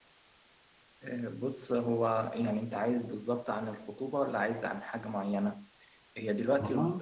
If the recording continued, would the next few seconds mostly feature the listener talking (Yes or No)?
No